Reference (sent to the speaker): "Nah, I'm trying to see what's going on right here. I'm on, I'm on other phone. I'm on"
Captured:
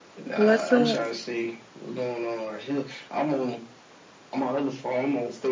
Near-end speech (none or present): present